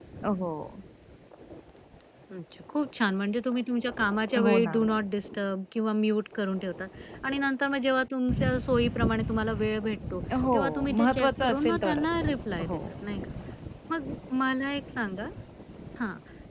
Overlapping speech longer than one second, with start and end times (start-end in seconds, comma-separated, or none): 10.5-12.2